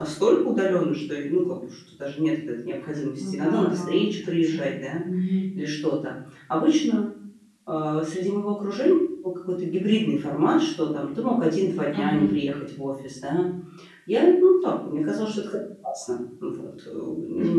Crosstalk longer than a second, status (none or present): present